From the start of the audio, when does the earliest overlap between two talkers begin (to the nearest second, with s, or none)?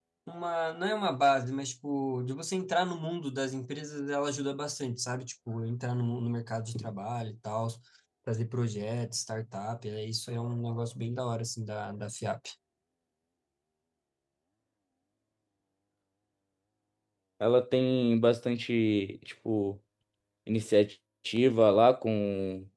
none